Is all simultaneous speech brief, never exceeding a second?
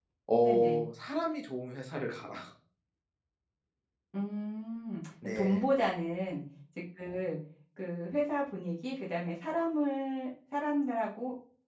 Yes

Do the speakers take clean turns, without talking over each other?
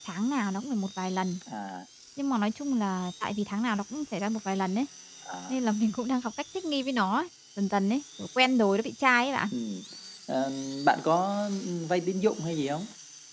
Yes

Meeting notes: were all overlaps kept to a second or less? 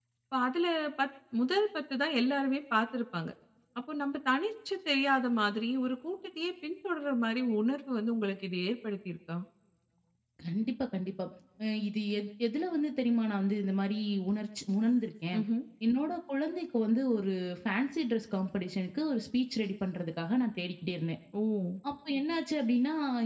Yes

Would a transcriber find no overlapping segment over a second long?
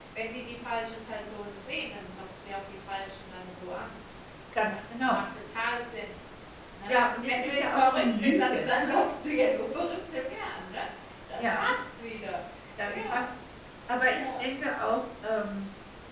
No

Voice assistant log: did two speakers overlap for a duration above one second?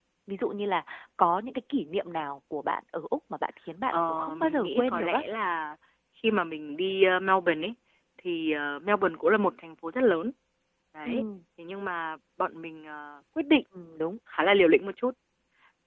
Yes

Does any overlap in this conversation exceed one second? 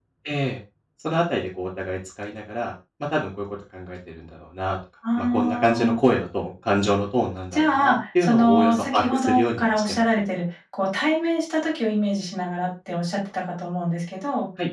Yes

